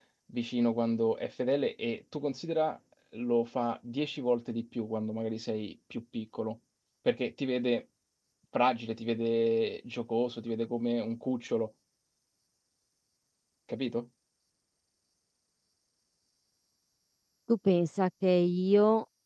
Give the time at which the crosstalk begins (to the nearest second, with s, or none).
none